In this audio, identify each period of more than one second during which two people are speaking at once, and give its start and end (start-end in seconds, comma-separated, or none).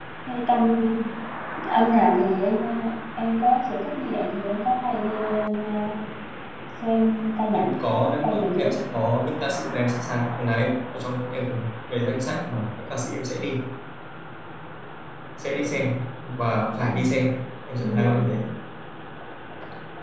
7.5-8.7